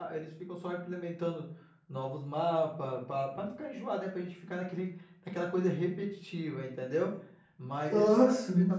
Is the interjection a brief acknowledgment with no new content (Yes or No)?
Yes